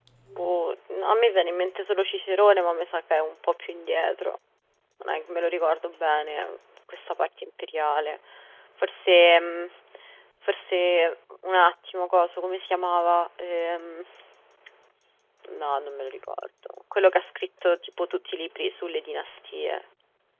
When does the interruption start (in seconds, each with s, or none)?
none